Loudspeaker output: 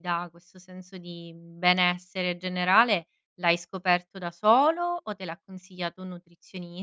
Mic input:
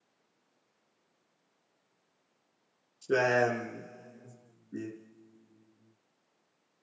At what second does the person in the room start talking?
3.0 s

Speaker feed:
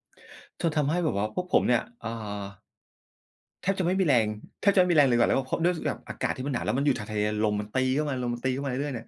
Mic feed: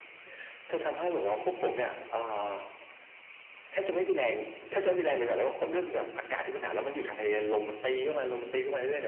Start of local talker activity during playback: none

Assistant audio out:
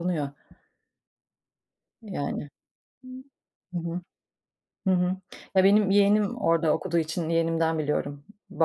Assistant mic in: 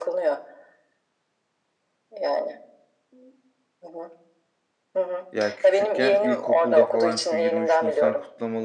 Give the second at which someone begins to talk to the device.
5.3 s

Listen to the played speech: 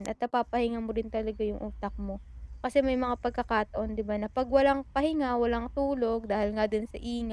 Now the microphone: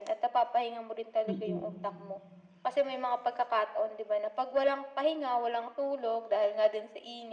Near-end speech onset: 1.2 s

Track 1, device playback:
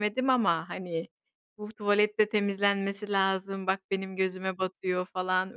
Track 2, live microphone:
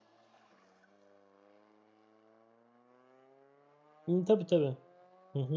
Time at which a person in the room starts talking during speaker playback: 4.1 s

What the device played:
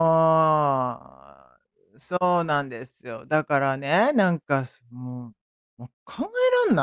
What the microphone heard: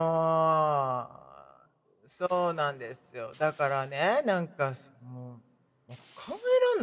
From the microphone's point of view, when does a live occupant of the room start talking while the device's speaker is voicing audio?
none

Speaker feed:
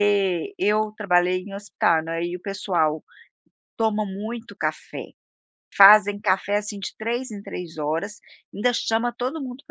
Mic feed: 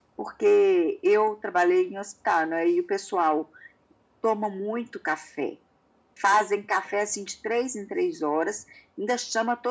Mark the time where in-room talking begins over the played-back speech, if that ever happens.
none

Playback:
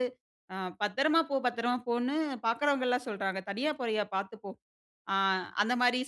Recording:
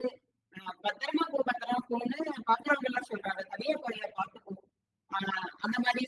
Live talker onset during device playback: none

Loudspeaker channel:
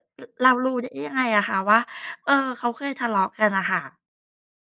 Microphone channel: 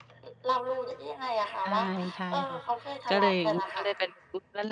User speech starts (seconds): 1.6 s

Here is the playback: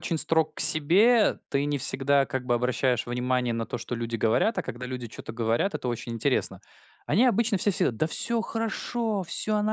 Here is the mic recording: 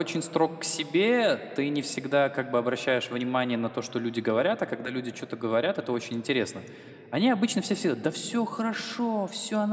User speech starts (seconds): none

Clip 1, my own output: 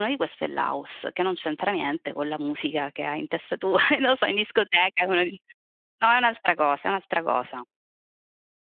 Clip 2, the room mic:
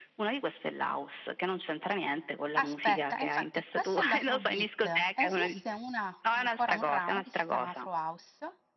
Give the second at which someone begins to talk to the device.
2.6 s

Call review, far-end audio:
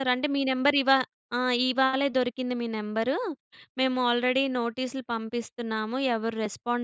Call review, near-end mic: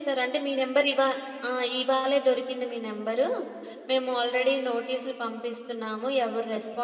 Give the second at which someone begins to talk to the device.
none

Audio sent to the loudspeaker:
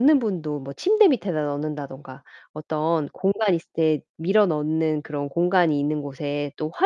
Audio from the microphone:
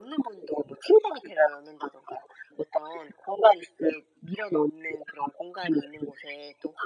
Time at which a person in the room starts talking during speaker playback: none

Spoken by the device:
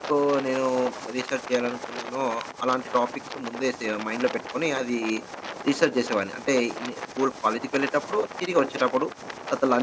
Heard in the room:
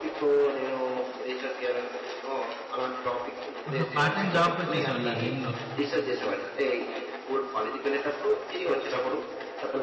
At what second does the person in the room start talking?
3.7 s

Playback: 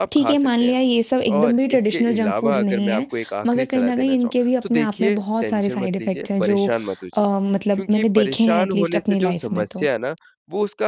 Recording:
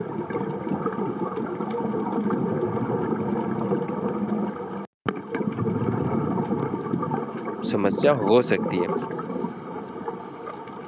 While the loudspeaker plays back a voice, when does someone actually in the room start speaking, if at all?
7.7 s

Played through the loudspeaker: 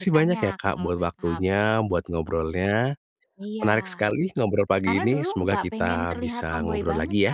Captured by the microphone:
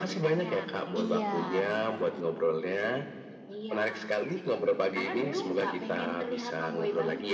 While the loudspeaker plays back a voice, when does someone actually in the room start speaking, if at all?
0.9 s

